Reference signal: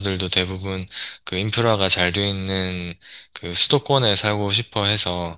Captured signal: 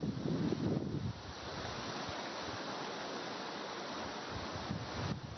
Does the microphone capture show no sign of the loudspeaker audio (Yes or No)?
Yes